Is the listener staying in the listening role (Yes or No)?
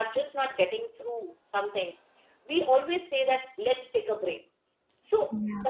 Yes